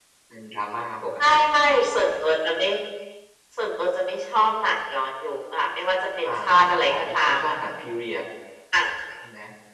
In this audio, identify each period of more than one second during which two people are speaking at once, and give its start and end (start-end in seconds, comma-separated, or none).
6.2-7.5